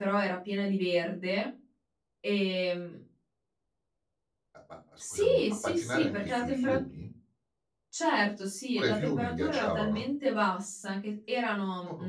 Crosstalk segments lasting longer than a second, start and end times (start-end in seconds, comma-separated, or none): 5.0-6.7, 8.8-10.0